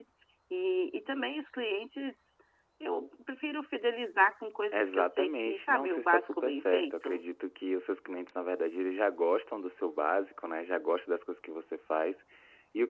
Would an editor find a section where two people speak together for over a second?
Yes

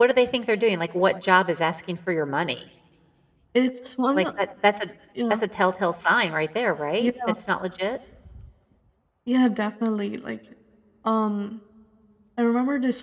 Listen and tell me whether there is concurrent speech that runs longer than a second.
No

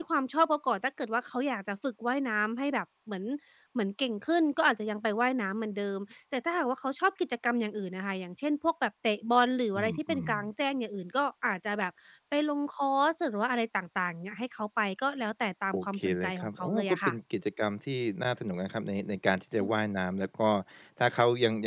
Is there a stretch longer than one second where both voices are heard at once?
Yes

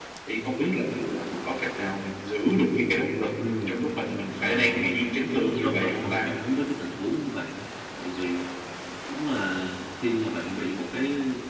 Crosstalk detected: Yes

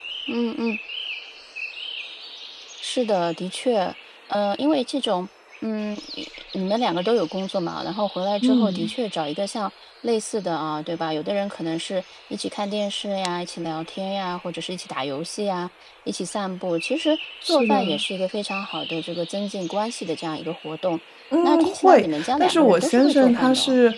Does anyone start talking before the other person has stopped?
Yes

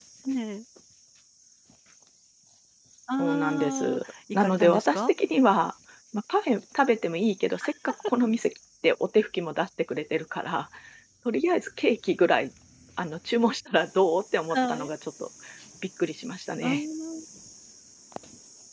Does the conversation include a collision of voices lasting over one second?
Yes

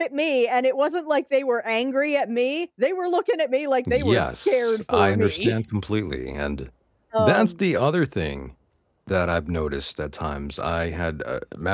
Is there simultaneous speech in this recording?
Yes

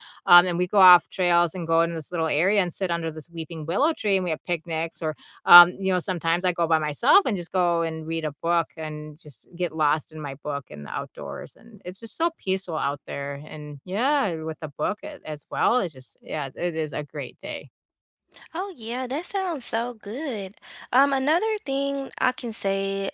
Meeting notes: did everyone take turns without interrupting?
Yes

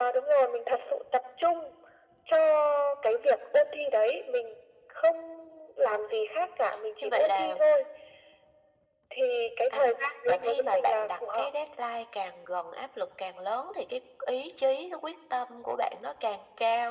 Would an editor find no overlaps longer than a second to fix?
No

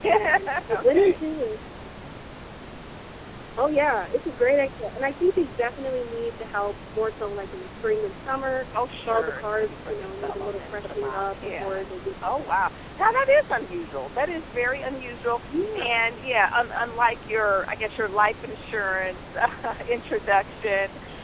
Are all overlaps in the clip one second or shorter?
No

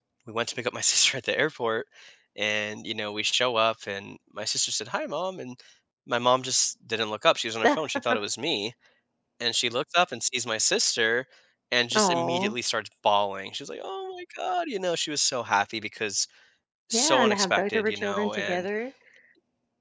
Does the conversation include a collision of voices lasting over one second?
Yes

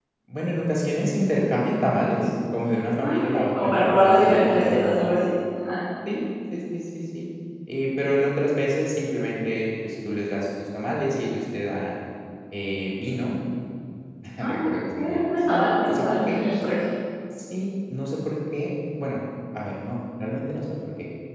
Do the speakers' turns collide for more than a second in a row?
Yes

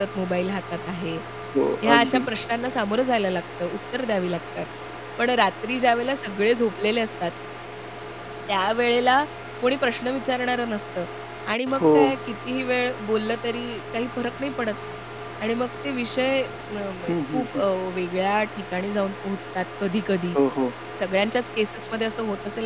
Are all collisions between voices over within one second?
Yes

